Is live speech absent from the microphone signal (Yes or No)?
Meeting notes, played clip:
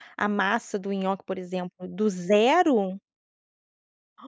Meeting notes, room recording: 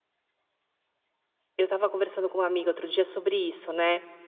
No